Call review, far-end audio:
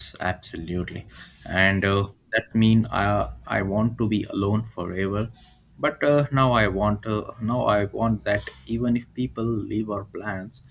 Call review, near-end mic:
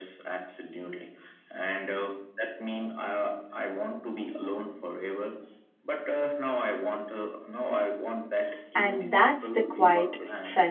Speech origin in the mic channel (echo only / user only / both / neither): both